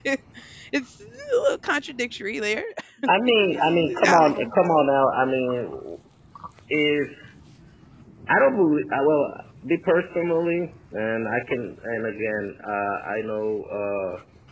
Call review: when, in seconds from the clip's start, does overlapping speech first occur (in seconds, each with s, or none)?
3.3 s